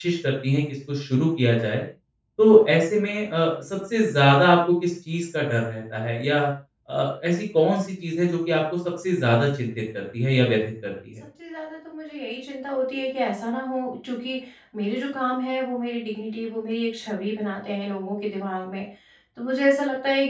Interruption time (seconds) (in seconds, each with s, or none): none